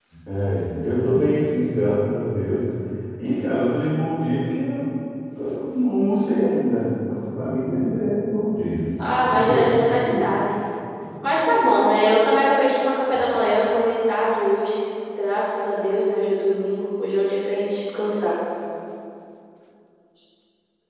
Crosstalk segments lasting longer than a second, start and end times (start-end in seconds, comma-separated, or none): none